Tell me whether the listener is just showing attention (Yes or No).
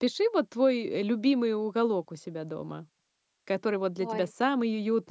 Yes